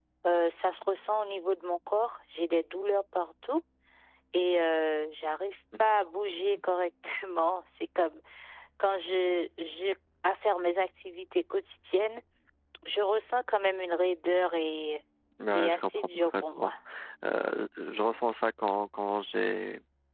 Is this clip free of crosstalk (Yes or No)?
No